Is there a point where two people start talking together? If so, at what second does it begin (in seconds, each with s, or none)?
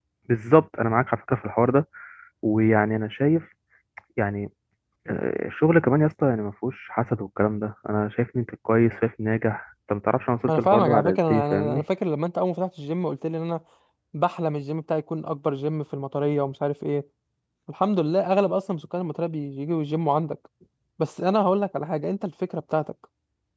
10.5 s